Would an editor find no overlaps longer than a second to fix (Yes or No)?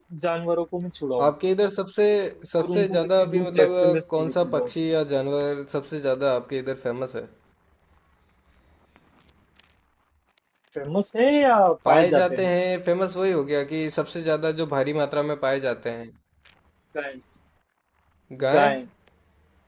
No